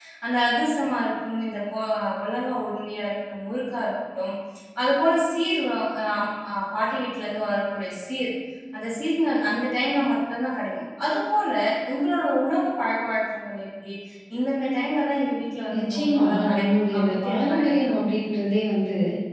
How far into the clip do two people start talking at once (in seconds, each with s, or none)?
15.7 s